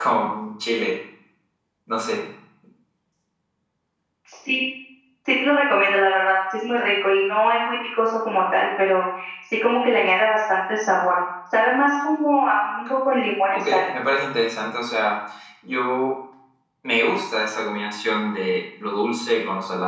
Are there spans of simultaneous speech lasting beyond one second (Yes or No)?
No